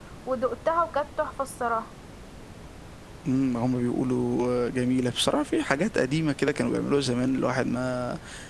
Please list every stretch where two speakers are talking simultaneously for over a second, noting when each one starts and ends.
none

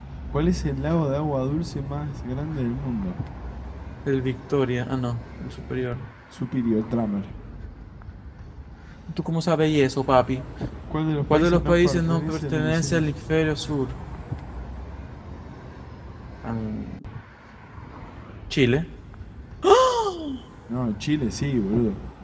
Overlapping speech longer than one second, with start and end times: 11.3-13.0

